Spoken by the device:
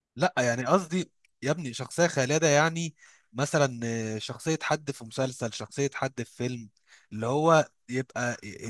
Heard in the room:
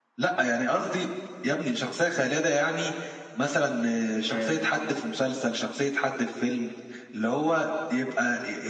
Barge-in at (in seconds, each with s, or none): 4.2 s